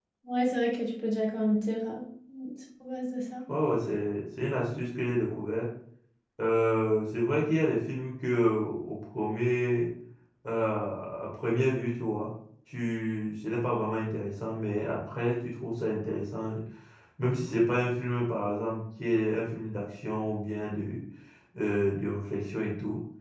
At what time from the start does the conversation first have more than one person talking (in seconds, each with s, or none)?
none